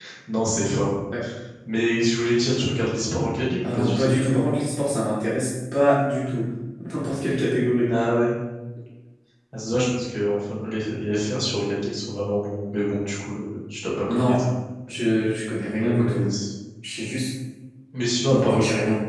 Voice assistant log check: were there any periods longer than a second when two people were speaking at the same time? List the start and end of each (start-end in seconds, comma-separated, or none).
none